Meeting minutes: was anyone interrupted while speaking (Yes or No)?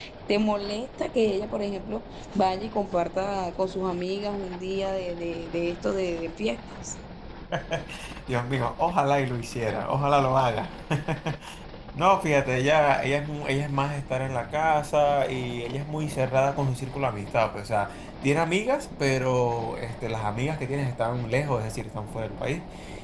No